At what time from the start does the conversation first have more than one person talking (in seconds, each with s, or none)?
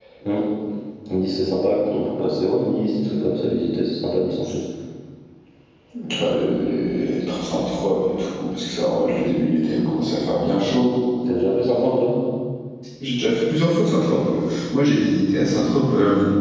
none